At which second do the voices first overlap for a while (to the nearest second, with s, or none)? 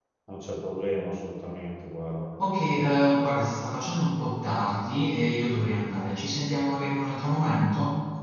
none